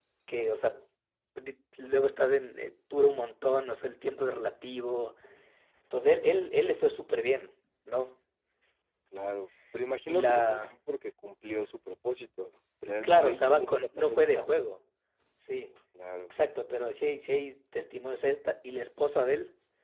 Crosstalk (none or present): present